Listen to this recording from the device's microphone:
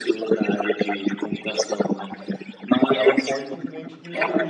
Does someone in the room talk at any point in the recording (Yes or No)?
Yes